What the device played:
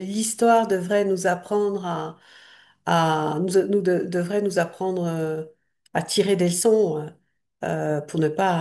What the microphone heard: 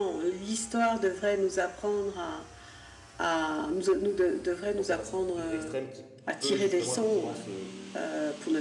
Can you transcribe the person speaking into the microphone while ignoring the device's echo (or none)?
Donc on a cette montée des extrêmes qui peut justement effectivement se,